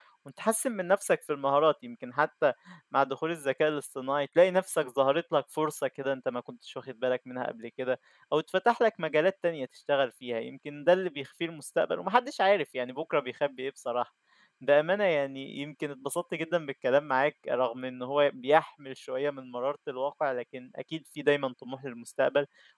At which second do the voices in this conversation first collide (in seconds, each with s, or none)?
none